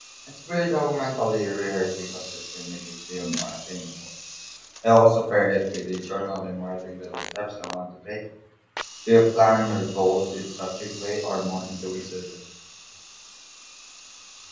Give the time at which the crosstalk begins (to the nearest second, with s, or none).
none